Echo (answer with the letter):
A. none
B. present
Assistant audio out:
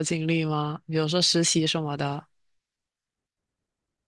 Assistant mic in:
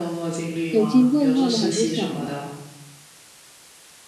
B